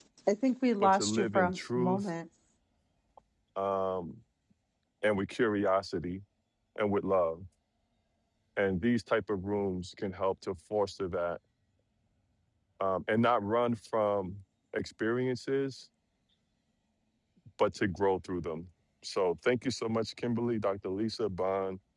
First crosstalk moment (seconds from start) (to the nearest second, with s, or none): 1 s